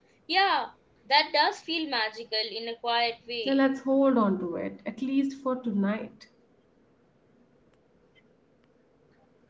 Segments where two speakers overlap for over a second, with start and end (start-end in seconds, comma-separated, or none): none